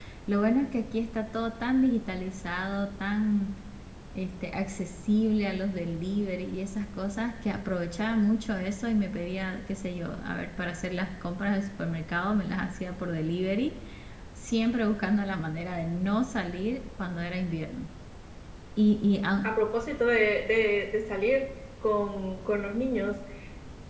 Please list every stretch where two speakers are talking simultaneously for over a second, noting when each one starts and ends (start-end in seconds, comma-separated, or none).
none